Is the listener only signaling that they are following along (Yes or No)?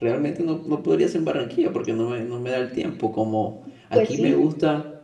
Yes